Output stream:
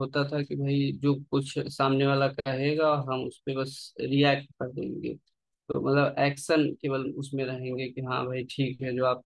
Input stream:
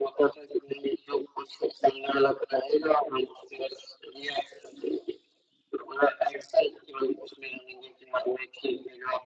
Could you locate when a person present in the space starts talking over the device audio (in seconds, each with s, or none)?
none